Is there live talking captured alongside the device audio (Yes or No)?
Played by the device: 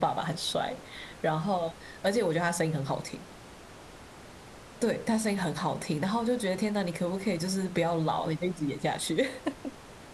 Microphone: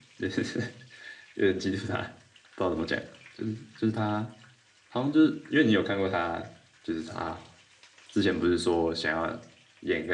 Yes